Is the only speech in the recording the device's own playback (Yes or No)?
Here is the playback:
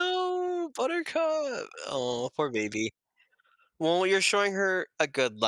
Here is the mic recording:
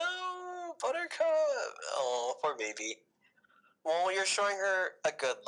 Yes